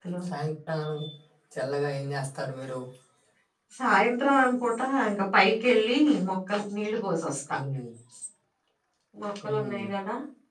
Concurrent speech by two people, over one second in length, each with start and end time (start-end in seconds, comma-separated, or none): none